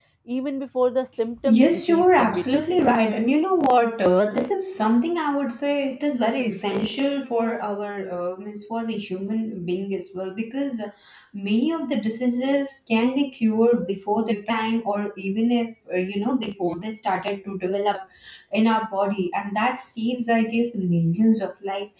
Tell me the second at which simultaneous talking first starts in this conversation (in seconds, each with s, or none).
1.4 s